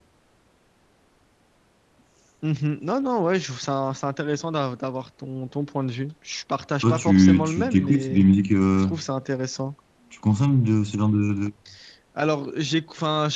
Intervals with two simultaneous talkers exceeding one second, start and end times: 6.8-8.2

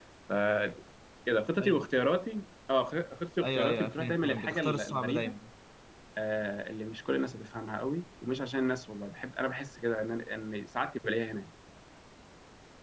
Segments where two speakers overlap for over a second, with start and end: 3.4-5.3

